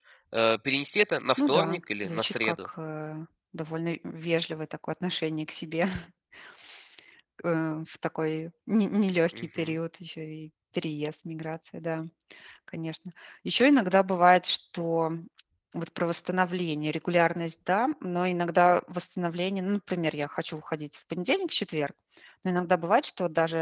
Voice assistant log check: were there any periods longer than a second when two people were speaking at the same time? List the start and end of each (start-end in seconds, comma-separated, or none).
1.4-2.7